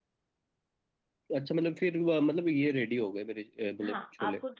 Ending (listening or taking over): taking over